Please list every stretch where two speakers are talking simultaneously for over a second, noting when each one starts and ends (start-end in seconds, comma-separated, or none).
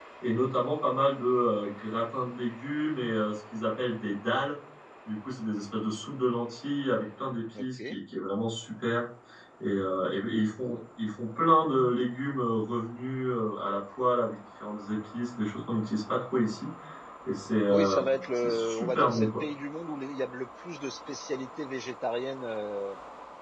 17.7-19.3